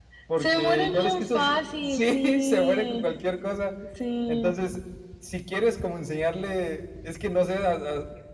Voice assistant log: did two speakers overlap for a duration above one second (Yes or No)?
Yes